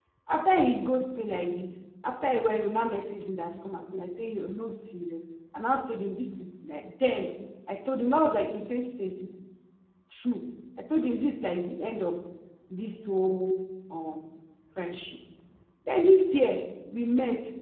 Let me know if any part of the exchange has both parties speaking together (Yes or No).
No